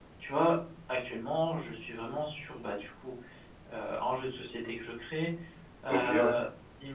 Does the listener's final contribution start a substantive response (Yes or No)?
No